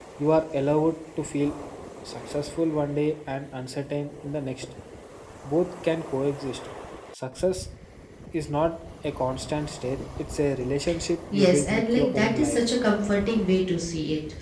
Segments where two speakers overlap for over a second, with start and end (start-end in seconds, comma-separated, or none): 11.3-12.6